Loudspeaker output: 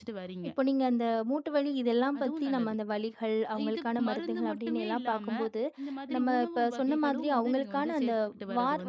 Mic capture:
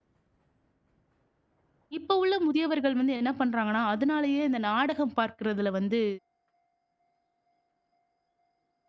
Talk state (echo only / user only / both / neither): user only